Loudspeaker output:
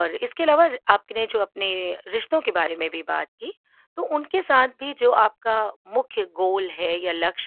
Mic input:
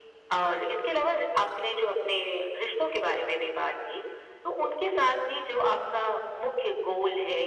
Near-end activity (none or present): none